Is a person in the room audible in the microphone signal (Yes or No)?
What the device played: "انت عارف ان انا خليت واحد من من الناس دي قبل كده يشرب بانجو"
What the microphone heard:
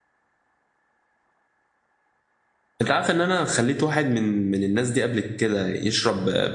No